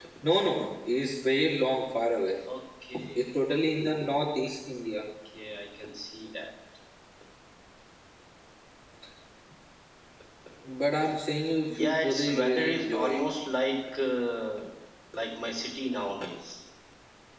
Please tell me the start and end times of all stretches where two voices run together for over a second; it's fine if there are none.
11.7-13.2

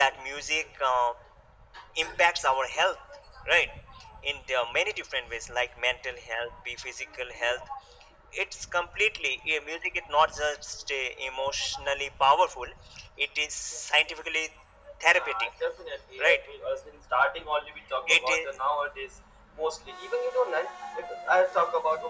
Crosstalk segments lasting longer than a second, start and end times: none

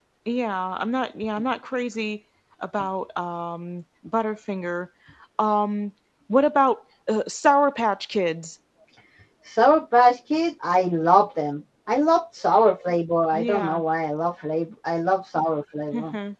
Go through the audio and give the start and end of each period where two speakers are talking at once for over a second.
none

